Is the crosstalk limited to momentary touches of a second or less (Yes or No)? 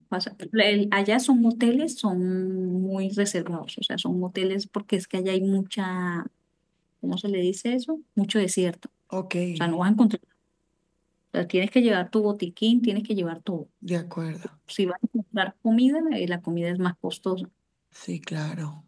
Yes